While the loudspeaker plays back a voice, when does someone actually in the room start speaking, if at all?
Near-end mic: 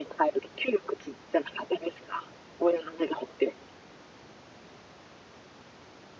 none

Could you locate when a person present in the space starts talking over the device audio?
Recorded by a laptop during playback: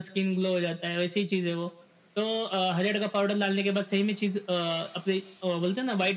none

